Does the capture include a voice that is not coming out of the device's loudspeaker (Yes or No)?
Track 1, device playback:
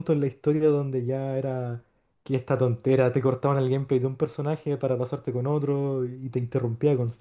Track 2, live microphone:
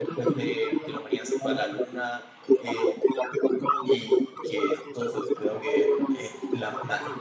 Yes